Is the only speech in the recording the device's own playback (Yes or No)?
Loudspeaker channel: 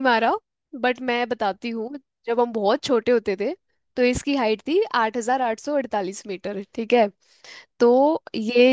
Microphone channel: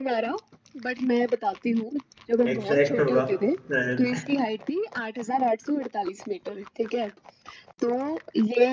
No